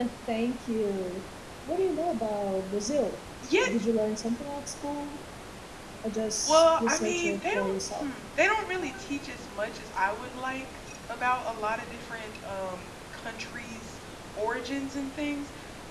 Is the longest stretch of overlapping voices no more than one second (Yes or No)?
No